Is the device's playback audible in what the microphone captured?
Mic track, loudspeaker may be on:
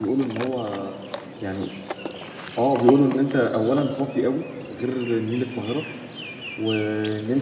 No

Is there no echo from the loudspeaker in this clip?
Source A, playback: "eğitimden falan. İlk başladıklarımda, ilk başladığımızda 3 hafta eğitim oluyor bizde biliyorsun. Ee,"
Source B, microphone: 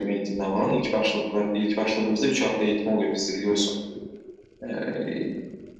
No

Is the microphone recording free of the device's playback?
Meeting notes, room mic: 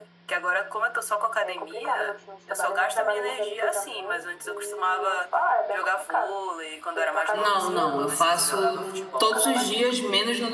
No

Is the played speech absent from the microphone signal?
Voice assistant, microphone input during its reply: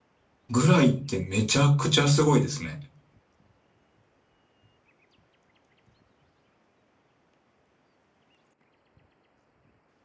Yes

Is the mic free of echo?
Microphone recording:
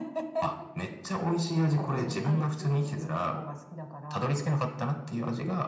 No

